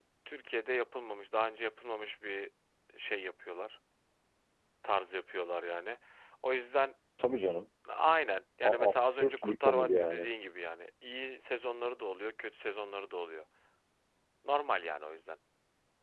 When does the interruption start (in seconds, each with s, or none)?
8.6 s